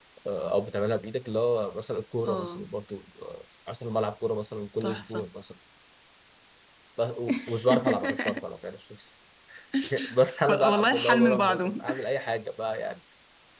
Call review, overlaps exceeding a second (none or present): present